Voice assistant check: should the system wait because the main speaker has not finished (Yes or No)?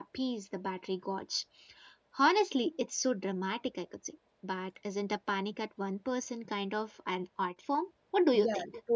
No